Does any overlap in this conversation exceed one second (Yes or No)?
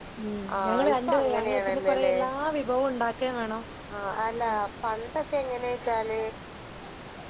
Yes